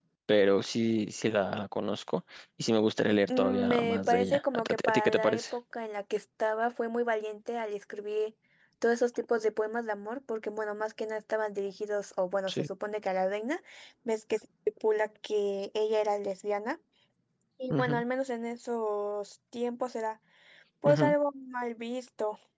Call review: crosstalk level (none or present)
present